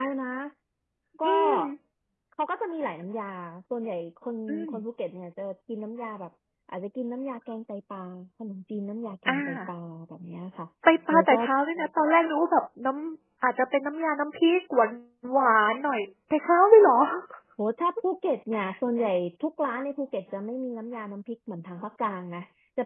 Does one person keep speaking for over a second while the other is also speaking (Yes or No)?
No